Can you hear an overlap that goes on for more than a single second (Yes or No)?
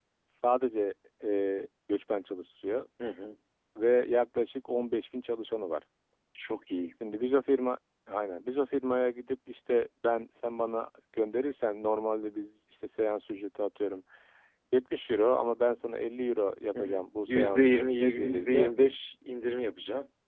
Yes